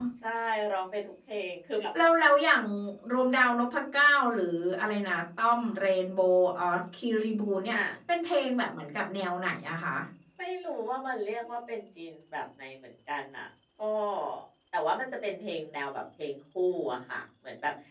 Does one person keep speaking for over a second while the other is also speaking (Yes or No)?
No